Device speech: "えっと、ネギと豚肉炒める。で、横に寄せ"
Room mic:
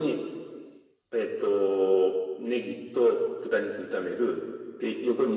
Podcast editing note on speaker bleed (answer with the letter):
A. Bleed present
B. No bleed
A